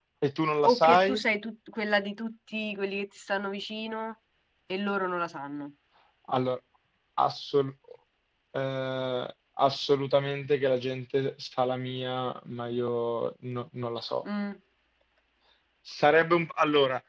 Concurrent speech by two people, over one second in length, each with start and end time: none

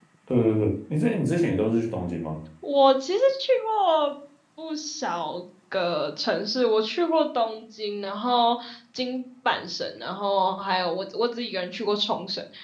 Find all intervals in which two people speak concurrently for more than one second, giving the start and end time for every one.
none

